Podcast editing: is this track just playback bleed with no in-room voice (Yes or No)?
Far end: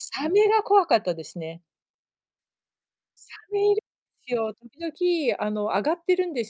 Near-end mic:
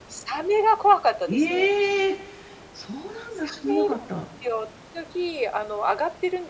No